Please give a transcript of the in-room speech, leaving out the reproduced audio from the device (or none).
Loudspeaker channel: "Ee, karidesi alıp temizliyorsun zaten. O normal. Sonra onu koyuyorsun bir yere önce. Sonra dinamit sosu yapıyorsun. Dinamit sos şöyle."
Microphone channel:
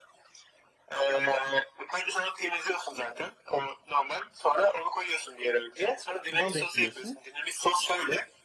bal ekliyorsun.